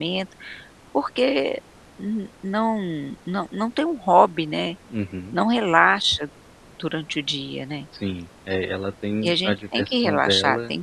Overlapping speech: Yes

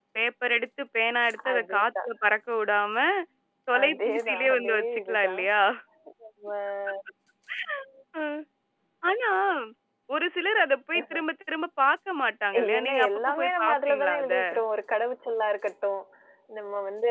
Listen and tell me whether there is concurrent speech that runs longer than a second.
Yes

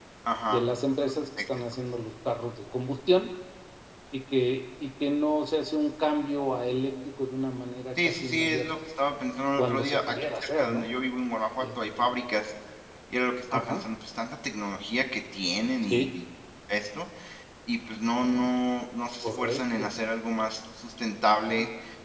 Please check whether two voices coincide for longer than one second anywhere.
Yes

